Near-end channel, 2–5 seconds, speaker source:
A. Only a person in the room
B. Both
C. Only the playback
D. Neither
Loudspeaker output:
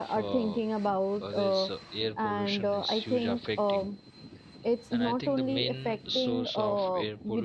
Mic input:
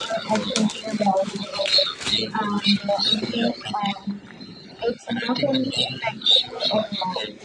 C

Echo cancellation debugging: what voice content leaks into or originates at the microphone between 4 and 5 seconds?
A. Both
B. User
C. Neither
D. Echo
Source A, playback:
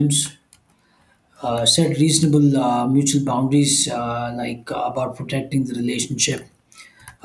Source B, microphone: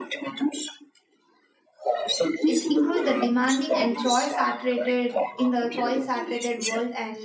A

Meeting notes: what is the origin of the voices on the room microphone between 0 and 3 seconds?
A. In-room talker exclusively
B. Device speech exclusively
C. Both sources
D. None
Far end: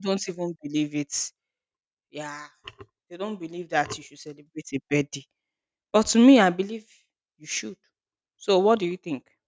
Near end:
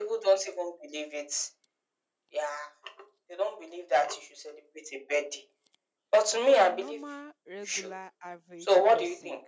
B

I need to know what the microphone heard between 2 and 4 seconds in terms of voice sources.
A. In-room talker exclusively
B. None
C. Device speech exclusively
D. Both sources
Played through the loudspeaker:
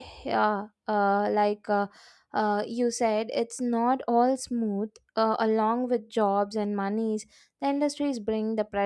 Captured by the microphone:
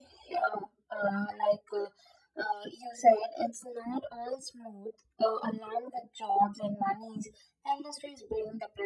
C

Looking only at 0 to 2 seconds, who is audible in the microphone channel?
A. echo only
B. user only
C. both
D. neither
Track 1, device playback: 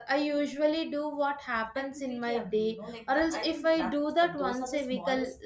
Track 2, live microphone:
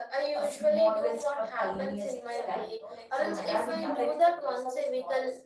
C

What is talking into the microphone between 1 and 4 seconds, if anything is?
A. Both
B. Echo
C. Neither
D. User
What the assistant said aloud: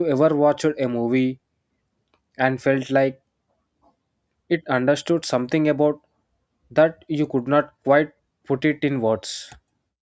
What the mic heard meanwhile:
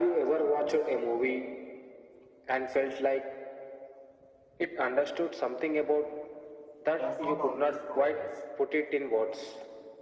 B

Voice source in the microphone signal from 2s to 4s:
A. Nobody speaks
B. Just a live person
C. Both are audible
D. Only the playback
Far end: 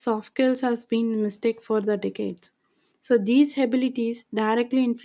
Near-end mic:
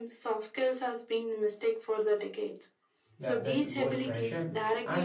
C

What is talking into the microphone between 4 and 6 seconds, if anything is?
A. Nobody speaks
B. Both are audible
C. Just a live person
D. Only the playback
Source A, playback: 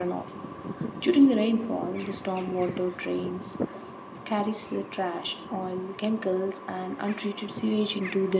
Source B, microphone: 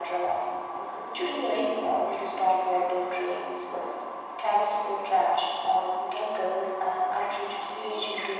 D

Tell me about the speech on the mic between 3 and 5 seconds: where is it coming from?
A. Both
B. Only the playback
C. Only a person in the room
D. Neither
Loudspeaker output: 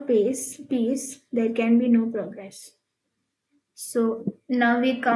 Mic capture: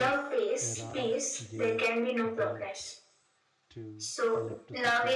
A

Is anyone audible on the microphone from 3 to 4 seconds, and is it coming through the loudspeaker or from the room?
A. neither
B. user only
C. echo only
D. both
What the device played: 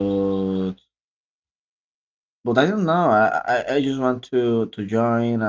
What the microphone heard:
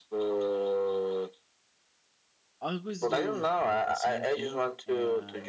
D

